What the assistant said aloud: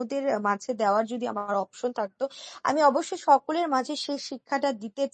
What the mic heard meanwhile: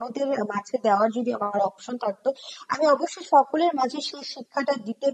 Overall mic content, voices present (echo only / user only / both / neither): echo only